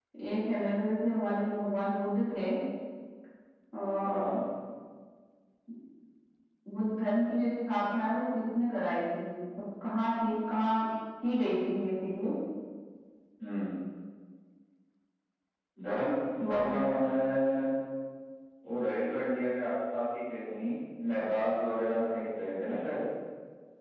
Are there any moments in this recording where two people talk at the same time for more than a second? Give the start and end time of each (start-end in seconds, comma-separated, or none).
none